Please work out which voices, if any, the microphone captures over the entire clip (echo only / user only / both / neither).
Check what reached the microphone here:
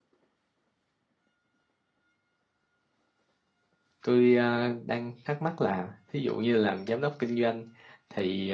user only